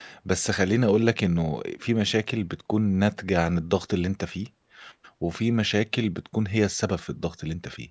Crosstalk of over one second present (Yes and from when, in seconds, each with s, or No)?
No